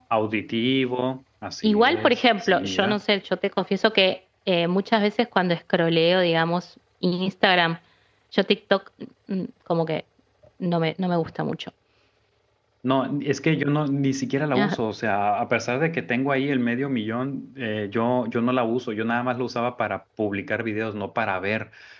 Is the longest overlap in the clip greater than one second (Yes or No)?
Yes